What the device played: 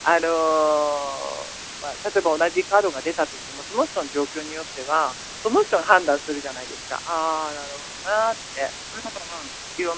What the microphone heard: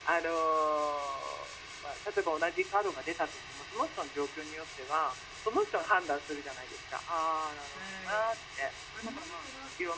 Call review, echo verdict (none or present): present